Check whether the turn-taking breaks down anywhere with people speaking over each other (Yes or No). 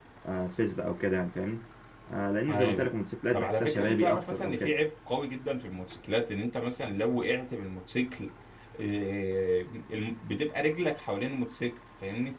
Yes